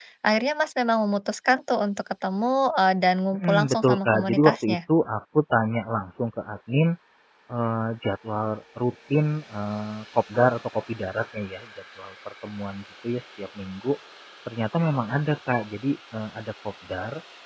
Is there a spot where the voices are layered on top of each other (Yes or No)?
Yes